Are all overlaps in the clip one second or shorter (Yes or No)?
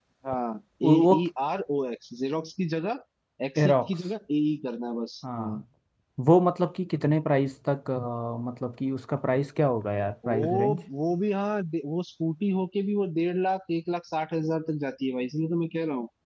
Yes